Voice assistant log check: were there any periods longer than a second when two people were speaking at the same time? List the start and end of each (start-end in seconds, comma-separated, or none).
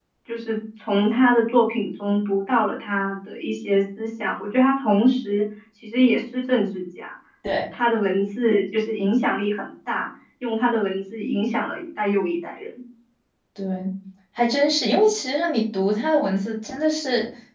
none